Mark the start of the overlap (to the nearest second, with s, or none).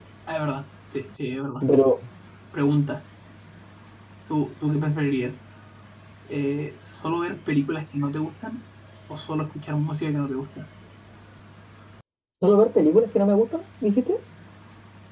none